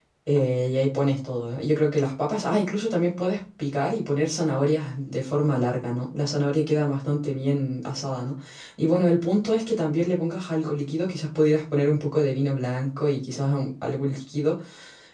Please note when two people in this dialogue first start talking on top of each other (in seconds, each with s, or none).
none